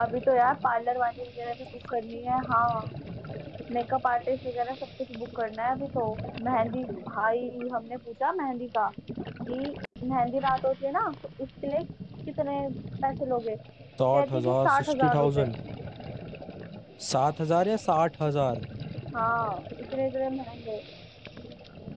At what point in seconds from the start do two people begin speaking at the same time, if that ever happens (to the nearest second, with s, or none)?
14 s